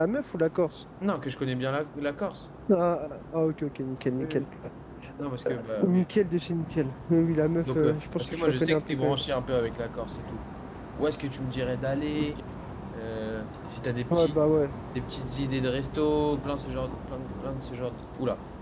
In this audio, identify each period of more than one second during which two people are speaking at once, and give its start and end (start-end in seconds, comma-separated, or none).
7.8-9.2